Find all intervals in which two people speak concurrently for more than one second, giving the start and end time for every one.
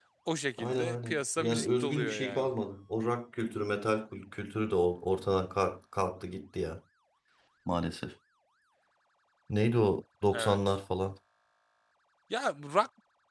0.6-2.5

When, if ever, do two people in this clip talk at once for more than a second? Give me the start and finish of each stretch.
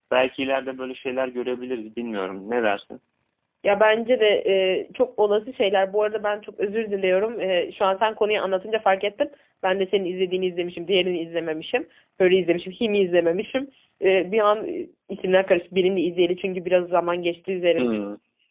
none

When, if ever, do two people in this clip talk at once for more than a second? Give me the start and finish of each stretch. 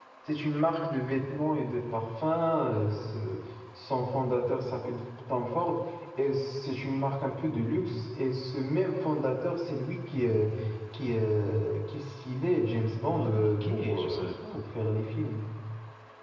13.1-14.6

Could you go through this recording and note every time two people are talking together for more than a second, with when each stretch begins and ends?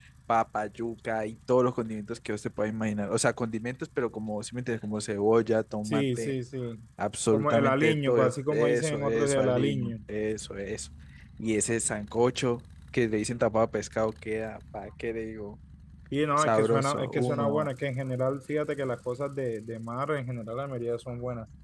7.3-9.9, 16.4-17.7

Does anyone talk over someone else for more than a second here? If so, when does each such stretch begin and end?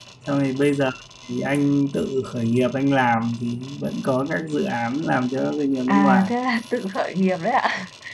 none

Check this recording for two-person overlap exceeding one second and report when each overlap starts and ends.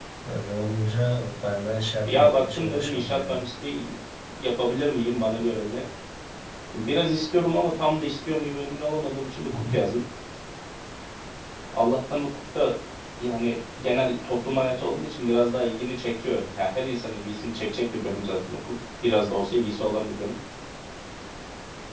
2.0-3.4

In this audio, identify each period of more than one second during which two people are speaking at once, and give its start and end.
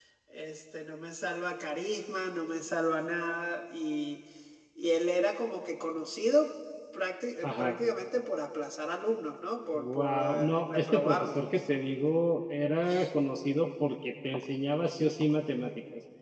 9.7-11.5

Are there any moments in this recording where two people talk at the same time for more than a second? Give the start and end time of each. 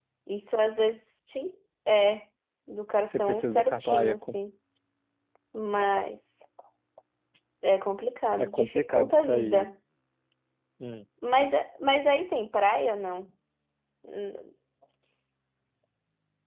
3.2-4.4, 8.4-9.7

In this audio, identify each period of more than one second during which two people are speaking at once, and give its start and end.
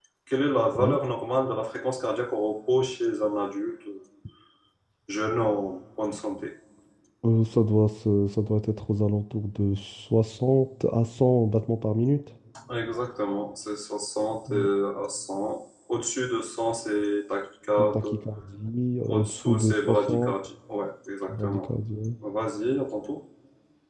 19.1-20.3

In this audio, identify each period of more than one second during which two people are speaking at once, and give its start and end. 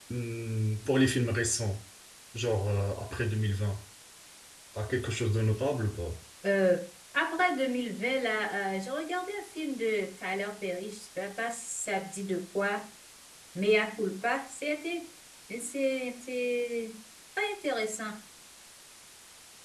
none

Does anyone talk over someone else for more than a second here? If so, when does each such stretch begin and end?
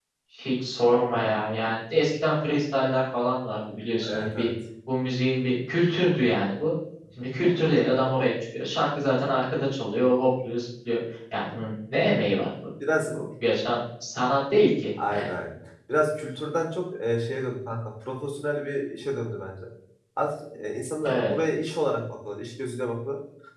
none

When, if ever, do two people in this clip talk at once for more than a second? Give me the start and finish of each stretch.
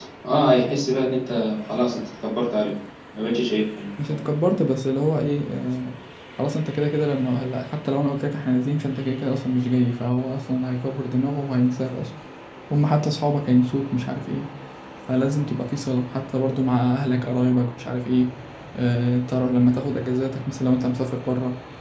none

